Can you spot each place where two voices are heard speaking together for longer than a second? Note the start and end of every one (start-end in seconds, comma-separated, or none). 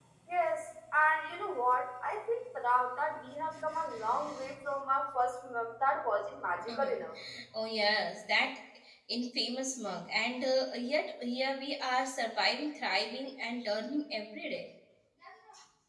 none